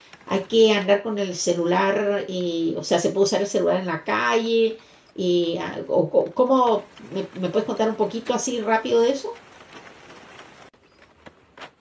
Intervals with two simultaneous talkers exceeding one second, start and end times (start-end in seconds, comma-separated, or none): none